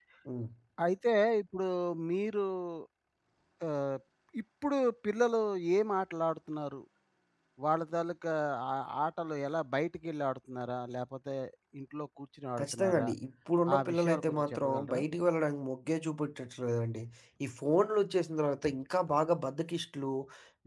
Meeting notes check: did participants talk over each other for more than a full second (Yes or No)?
Yes